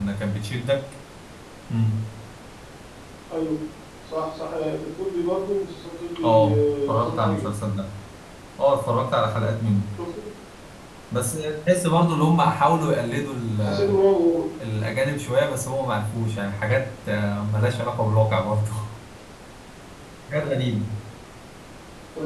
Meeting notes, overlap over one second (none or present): present